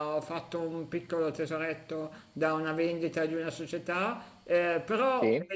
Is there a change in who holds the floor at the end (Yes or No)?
No